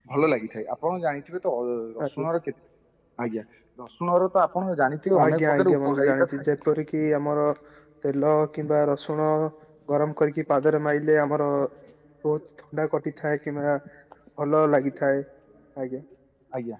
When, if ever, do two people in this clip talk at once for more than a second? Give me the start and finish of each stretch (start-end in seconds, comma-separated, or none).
5.2-6.4